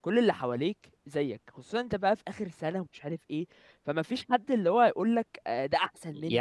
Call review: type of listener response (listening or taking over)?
taking over